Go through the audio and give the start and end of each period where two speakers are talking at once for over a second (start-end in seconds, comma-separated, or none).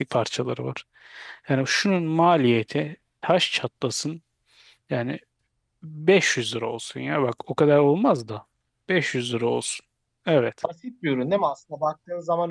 none